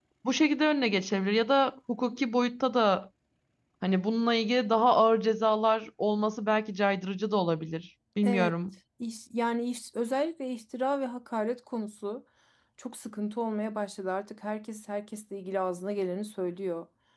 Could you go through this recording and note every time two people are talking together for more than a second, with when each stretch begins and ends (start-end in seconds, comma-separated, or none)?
none